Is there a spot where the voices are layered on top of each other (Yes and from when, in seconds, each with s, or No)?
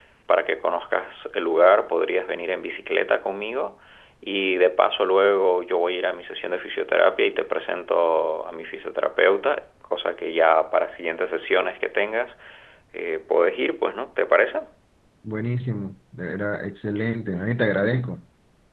No